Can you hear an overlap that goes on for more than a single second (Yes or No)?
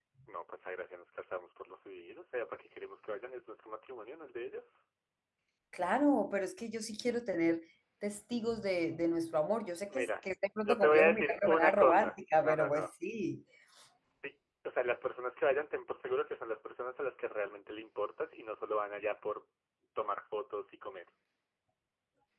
Yes